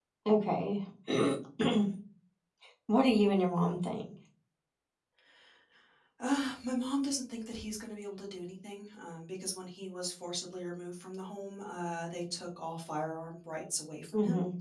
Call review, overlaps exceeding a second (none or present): none